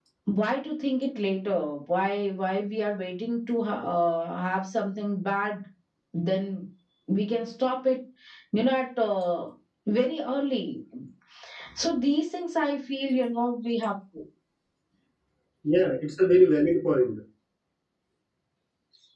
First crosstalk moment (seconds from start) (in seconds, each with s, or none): none